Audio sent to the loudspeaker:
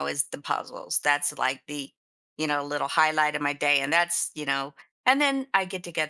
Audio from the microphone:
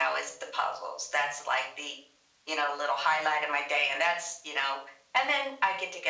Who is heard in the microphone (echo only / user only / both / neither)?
echo only